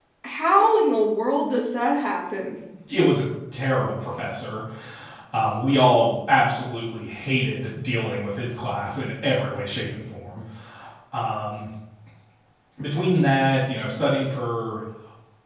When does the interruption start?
none

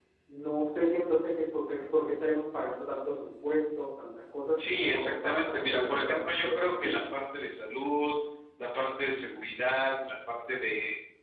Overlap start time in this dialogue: 4.6 s

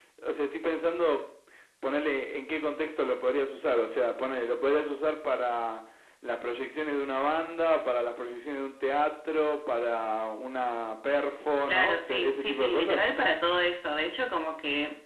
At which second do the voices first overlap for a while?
11.7 s

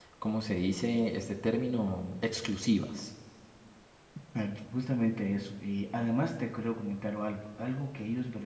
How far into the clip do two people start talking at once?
none

